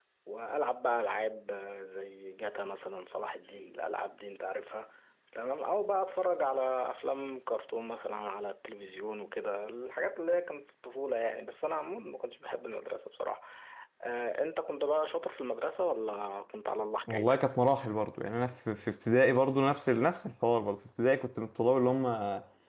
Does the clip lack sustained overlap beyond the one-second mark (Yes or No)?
Yes